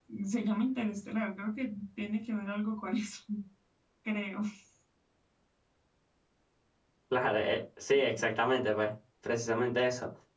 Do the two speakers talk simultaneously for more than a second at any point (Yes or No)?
No